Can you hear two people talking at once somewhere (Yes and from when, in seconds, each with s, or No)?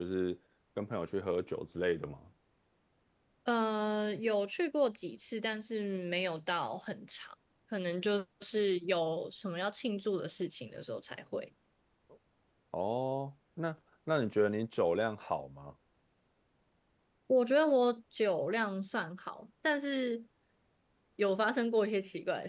No